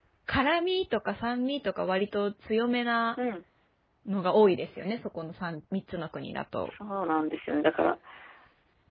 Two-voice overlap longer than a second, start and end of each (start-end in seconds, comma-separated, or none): none